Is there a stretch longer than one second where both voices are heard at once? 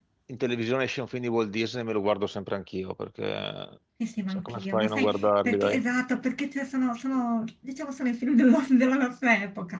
Yes, from 4.3 s

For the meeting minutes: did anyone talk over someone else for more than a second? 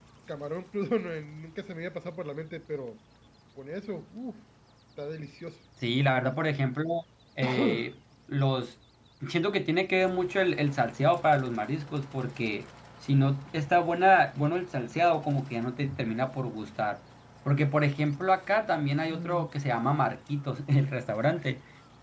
No

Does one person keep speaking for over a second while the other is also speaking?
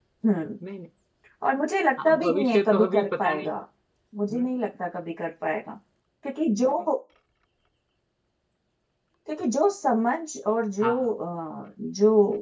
Yes, from 2.0 s

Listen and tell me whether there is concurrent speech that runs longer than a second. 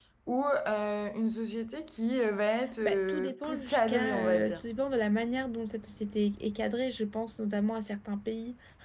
Yes, from 2.8 s

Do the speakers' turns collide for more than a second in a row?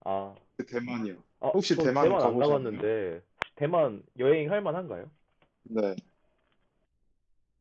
Yes, from 1.4 s

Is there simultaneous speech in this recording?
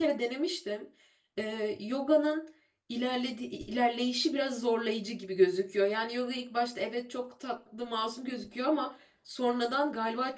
No

